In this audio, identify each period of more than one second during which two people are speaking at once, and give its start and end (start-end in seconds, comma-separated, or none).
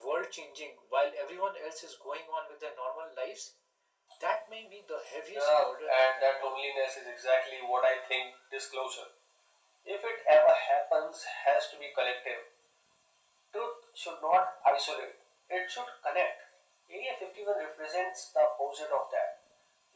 5.4-6.6